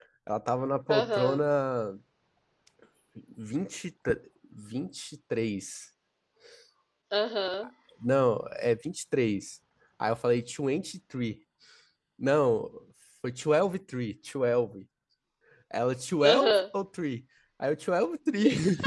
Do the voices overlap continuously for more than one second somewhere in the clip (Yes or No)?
No